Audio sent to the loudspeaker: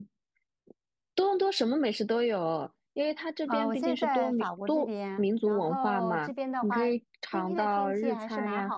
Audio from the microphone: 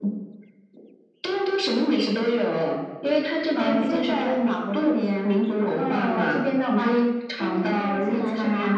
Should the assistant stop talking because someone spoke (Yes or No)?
No